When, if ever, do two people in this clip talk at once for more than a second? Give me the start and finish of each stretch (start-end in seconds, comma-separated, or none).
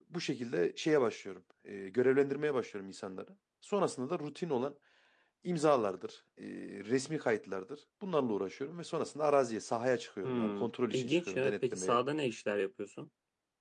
10.2-12.0